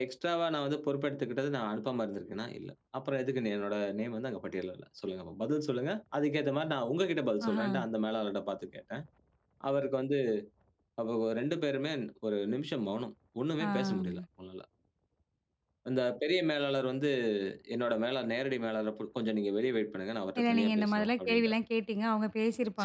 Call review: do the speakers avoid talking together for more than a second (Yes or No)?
No